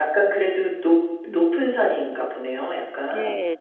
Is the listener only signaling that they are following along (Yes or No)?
No